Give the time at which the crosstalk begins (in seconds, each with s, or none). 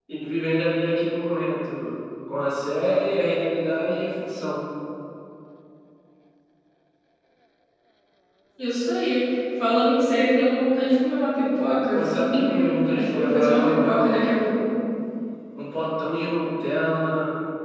11.9 s